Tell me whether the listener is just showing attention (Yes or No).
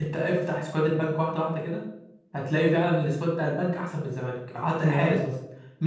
Yes